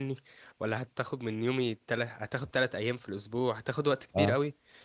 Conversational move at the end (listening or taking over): listening